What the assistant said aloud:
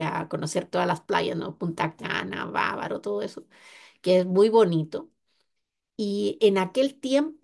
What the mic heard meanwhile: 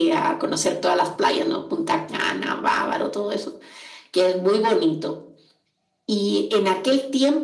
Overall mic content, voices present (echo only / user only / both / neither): echo only